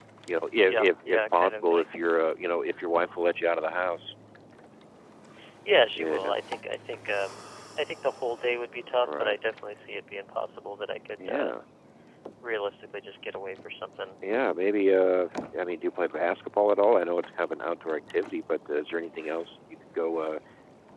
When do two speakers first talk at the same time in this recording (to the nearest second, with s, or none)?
1 s